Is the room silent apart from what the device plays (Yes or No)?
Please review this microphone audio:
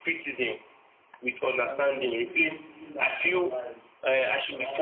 No